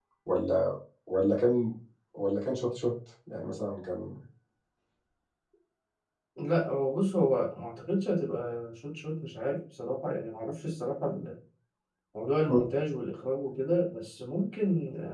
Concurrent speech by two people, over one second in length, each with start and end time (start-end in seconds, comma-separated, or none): none